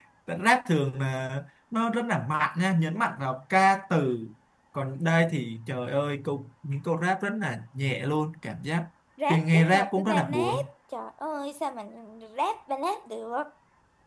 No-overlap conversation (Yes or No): No